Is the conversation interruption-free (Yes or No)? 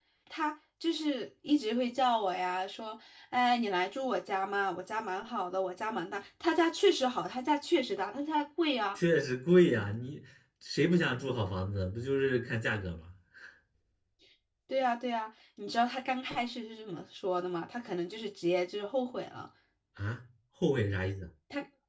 Yes